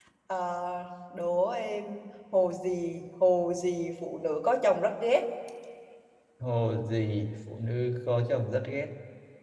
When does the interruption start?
none

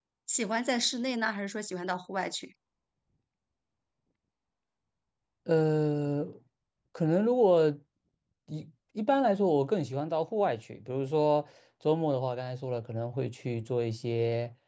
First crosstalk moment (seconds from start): none

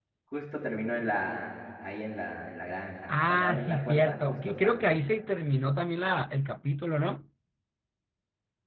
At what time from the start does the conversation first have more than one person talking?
3 s

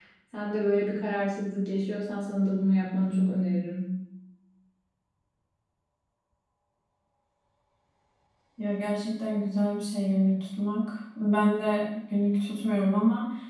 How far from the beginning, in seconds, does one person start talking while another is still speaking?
none

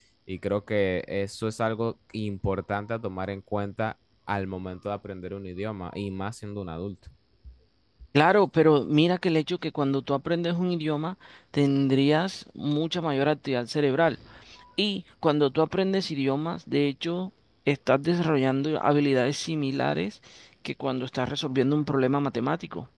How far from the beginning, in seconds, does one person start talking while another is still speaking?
none

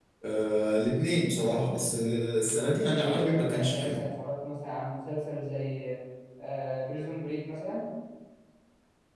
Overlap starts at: 3 s

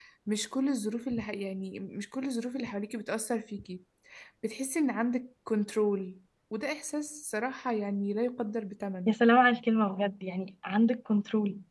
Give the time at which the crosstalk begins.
none

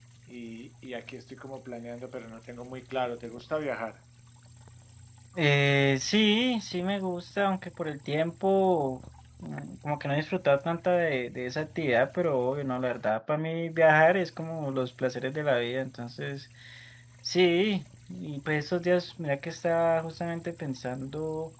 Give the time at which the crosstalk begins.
none

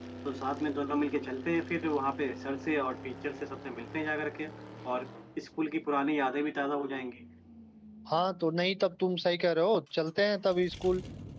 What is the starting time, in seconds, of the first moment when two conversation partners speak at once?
none

